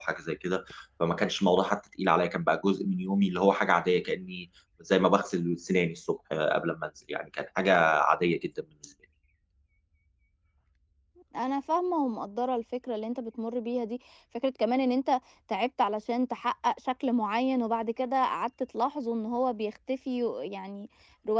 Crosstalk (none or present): none